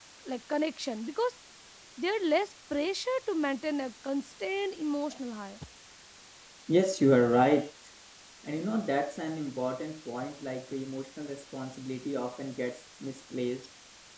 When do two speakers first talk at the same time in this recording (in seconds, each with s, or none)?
none